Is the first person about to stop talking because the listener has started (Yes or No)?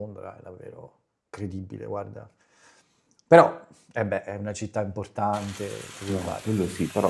Yes